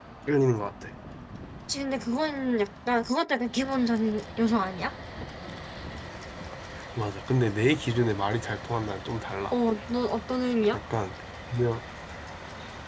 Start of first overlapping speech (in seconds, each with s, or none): none